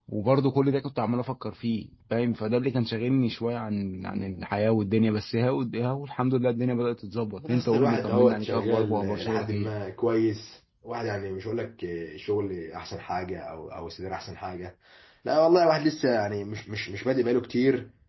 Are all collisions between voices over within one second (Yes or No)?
No